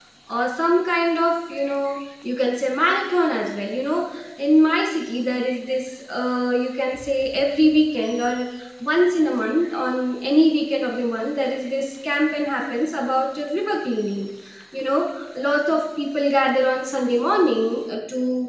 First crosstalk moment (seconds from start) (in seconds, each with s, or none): none